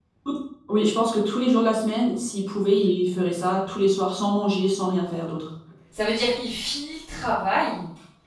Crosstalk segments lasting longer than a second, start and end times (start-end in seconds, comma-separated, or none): none